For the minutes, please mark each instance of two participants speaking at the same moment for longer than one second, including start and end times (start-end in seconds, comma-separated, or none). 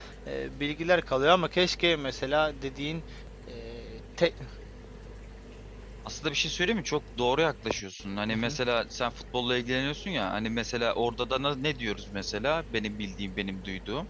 none